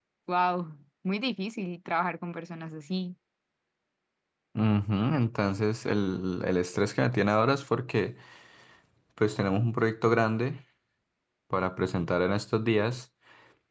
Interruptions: none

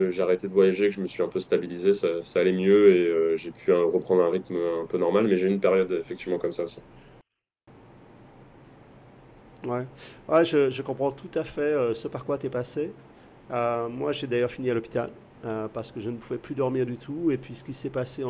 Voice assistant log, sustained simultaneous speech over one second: none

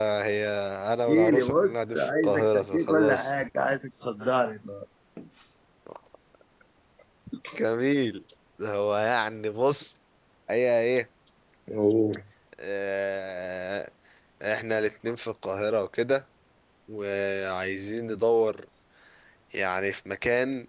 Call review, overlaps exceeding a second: present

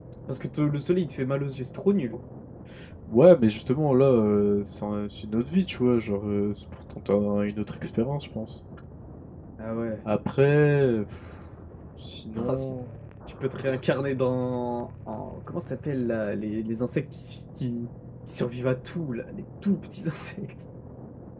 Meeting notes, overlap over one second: none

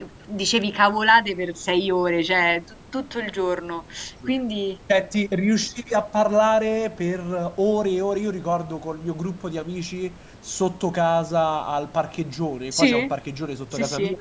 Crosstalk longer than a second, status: none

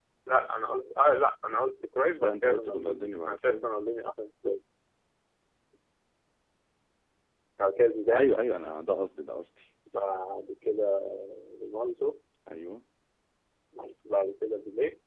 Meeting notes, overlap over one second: present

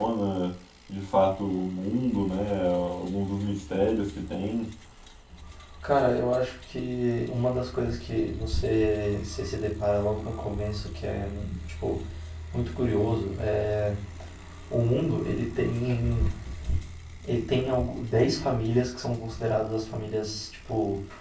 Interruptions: none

